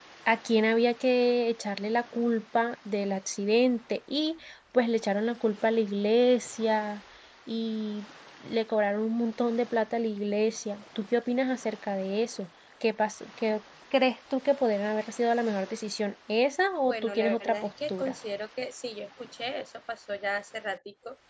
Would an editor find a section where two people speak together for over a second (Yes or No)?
Yes